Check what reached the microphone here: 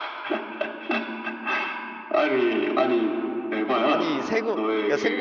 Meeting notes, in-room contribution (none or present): present